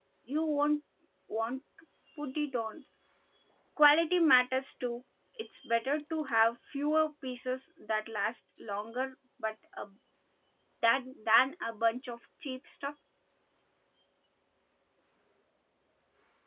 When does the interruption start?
none

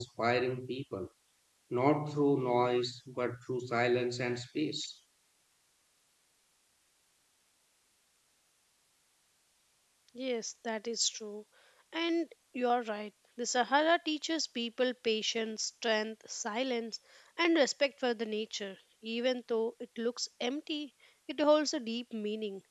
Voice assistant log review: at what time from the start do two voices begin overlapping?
none

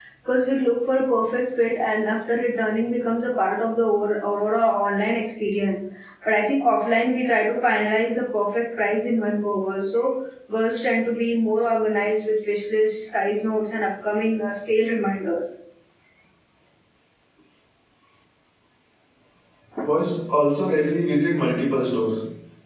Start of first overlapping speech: none

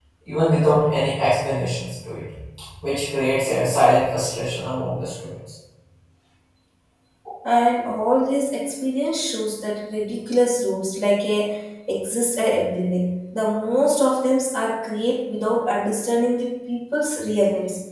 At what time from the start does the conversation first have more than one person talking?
none

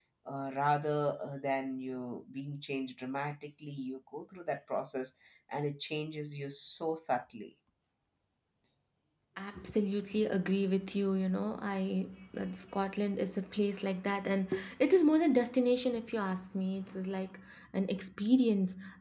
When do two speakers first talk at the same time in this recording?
none

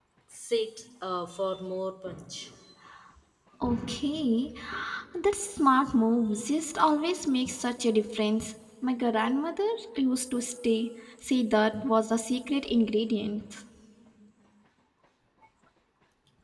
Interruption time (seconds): none

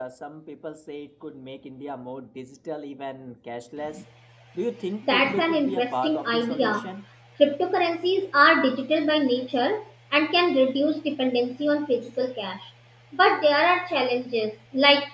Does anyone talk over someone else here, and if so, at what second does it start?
5.1 s

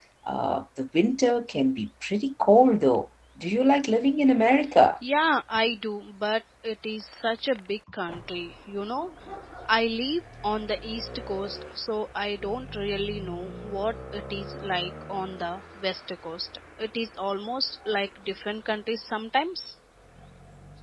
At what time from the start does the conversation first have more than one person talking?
none

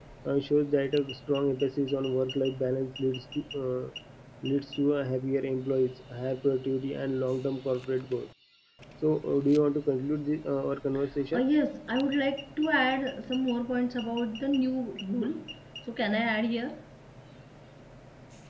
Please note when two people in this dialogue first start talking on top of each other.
none

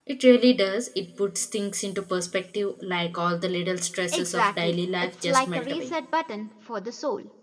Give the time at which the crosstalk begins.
4.1 s

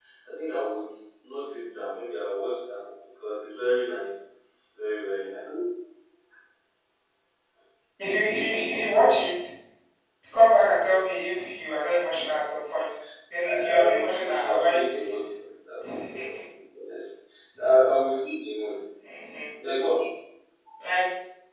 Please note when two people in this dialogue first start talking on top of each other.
13.4 s

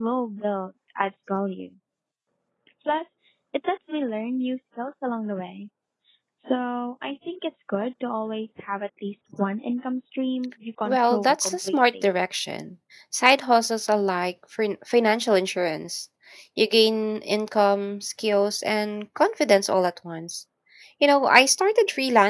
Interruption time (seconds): 10.8 s

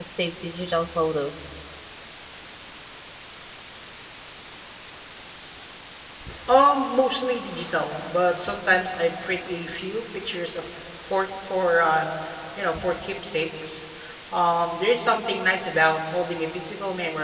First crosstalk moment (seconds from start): none

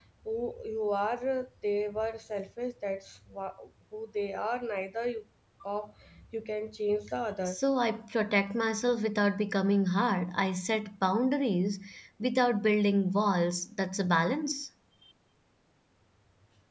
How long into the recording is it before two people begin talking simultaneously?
none

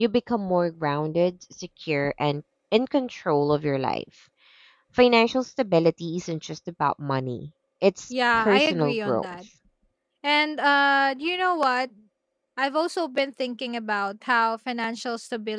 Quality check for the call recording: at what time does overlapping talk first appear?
8.1 s

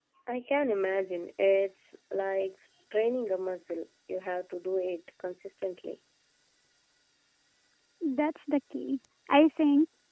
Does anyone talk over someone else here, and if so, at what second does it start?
none

